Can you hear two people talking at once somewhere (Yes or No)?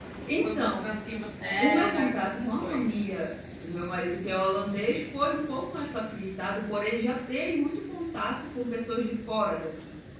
Yes